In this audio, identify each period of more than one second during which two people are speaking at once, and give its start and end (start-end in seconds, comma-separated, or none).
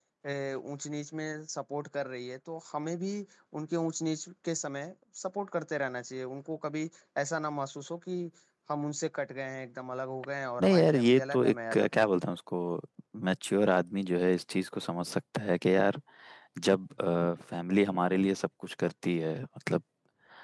10.6-12.1